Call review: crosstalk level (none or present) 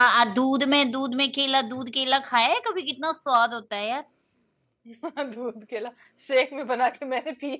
none